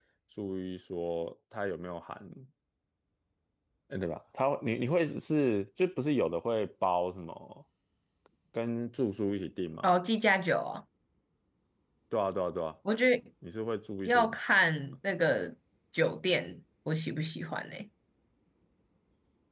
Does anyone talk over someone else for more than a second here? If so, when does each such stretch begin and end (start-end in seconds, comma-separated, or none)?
none